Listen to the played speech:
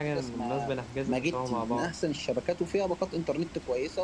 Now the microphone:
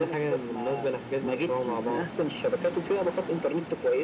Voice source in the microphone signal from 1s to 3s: echo only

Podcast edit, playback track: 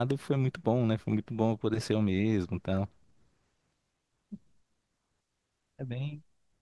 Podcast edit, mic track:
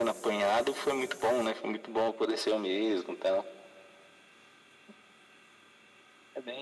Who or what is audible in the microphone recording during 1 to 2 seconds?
echo only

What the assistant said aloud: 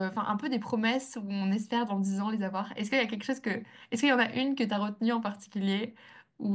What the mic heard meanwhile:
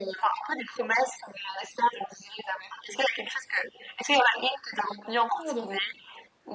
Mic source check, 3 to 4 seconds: echo only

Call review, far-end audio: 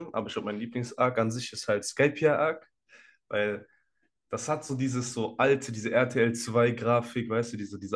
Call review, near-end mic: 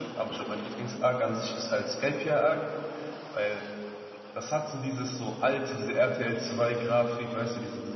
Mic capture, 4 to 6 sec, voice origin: echo only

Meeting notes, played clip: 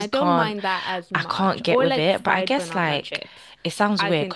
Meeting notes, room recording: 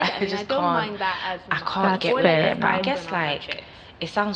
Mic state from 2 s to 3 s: both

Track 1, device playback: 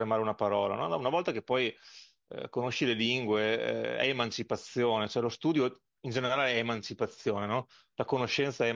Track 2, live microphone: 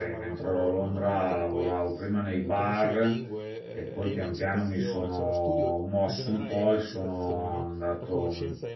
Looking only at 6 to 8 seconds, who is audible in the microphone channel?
both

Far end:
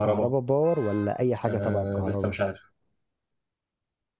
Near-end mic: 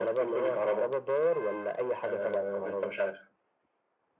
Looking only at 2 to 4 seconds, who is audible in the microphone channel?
echo only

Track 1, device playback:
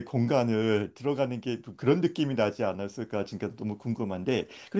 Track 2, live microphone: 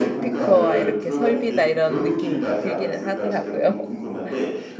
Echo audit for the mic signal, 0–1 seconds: both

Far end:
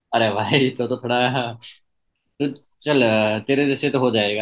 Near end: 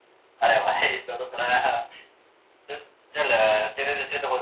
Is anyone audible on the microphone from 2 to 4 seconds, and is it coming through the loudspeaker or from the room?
echo only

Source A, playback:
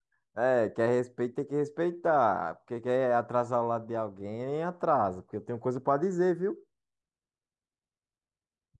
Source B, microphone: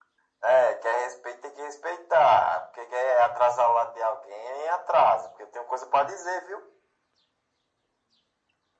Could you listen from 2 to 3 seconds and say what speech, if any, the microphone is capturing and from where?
echo only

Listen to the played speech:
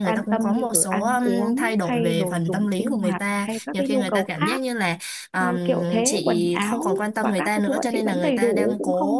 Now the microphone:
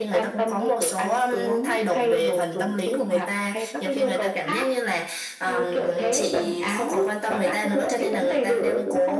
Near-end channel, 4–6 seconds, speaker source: echo only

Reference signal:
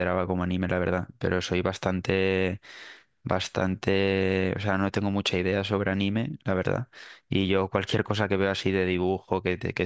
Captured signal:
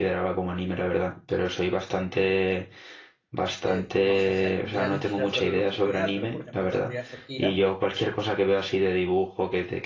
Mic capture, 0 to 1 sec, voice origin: echo only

